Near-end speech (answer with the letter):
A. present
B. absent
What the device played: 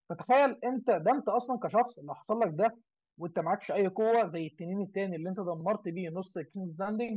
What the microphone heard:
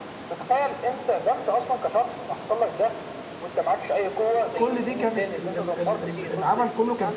A